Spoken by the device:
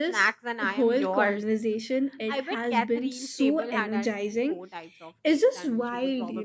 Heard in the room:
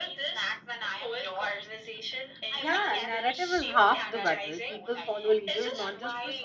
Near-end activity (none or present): present